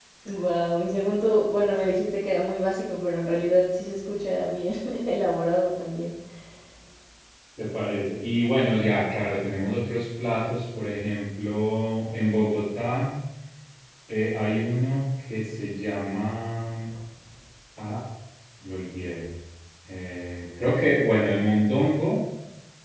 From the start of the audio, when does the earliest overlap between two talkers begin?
none

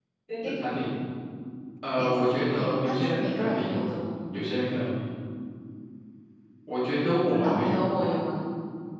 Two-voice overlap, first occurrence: 2.0 s

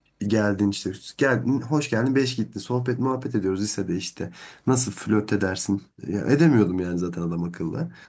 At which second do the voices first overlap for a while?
none

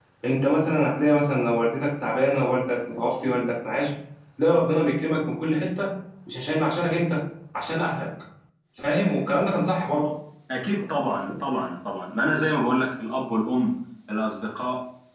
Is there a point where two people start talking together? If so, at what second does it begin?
none

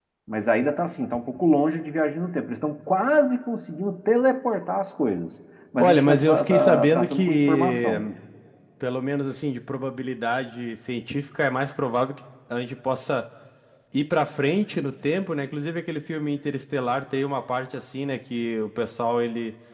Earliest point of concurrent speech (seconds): 5.8 s

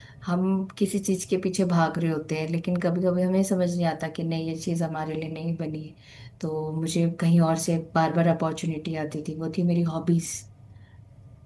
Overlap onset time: none

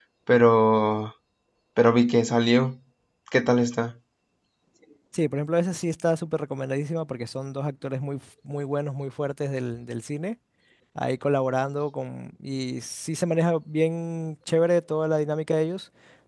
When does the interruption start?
none

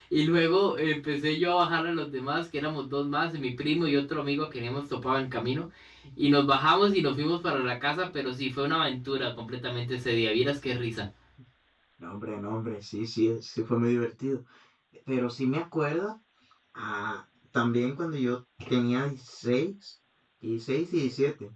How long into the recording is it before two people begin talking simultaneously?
none

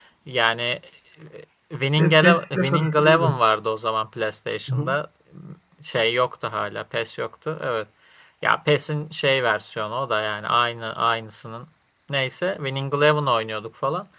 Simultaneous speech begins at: 2.0 s

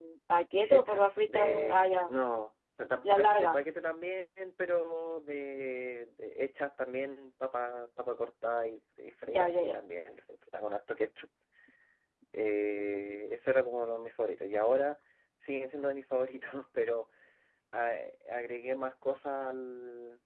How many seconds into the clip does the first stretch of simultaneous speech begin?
0.7 s

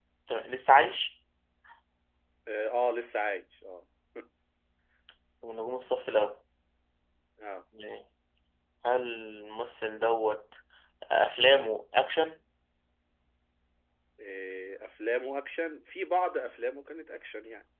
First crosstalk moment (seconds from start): none

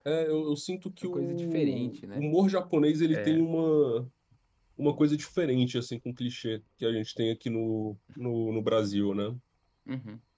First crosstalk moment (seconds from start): 1.0 s

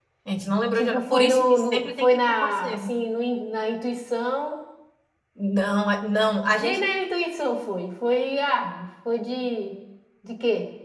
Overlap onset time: 0.8 s

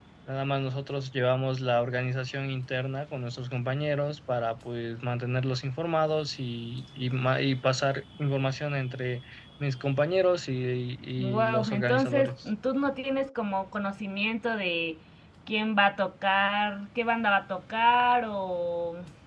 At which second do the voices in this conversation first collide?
11.2 s

